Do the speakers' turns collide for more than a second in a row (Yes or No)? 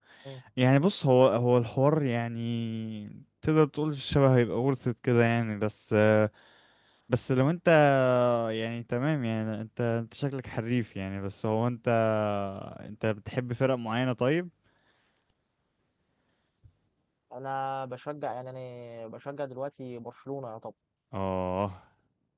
No